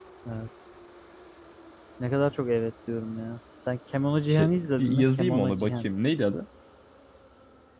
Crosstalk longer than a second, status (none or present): present